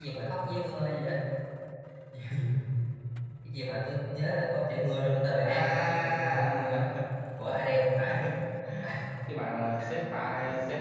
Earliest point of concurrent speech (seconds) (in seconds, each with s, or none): 5.4 s